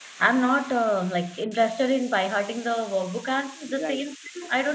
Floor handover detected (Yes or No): No